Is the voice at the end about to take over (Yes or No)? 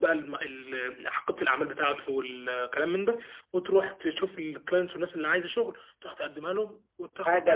Yes